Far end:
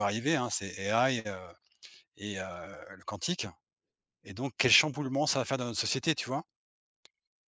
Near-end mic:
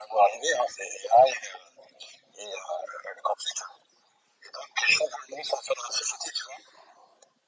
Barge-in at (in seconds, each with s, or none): none